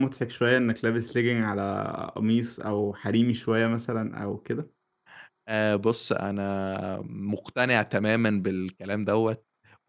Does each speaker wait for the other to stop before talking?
Yes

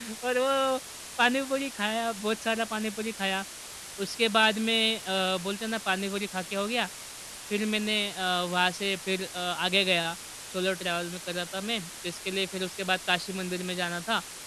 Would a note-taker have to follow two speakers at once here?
No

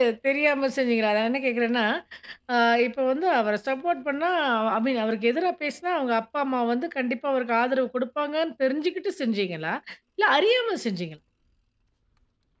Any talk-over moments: No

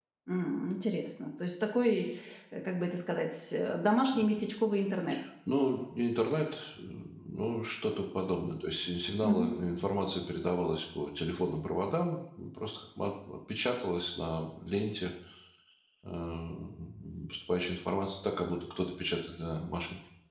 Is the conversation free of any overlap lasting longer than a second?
Yes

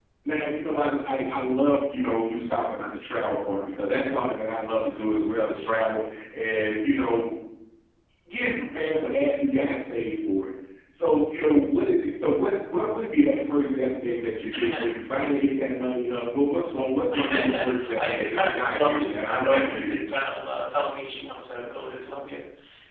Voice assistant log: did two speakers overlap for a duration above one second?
Yes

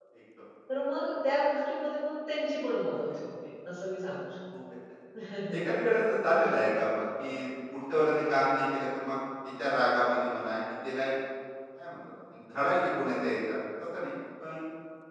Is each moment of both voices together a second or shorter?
Yes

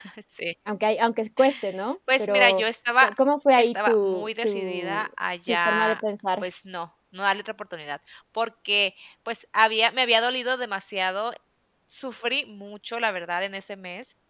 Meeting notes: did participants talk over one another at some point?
Yes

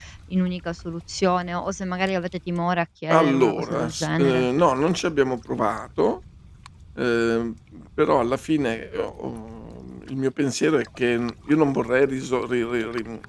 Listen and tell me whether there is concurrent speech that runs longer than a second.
Yes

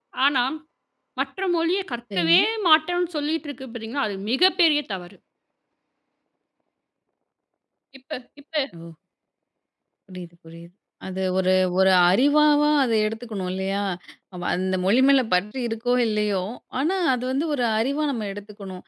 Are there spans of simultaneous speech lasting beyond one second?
No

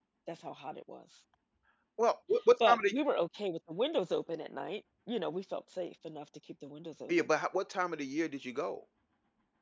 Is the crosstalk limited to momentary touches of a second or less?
Yes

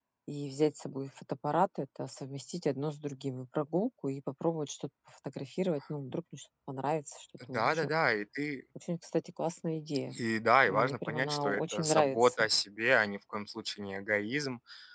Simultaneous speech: Yes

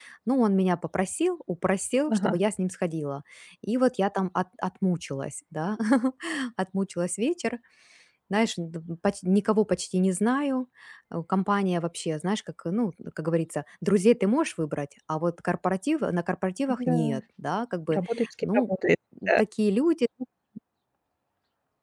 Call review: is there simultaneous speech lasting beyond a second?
No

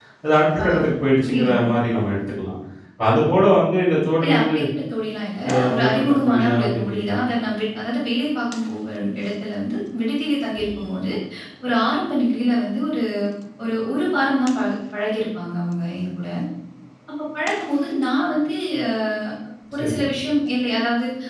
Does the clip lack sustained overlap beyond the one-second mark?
No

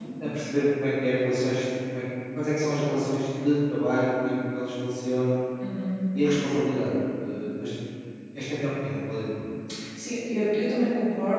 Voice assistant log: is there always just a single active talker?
Yes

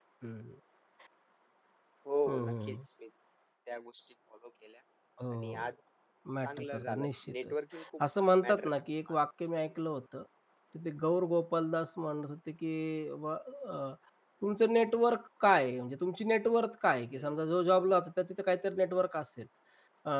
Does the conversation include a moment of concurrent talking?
Yes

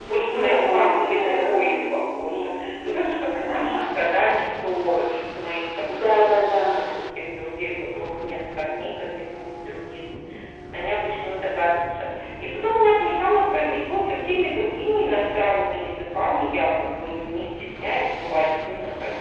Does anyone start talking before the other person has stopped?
Yes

